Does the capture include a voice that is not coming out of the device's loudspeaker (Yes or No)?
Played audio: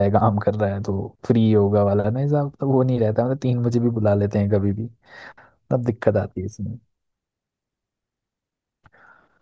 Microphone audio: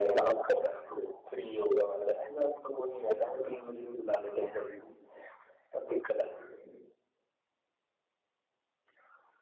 No